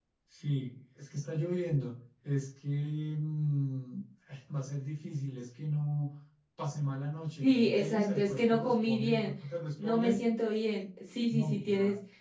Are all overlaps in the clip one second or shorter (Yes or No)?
No